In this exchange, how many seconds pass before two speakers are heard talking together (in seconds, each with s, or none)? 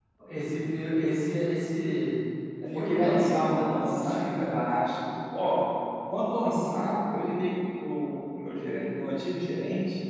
2.7 s